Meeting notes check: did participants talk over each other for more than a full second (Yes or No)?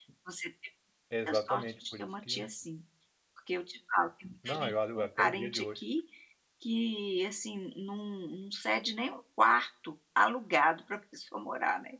Yes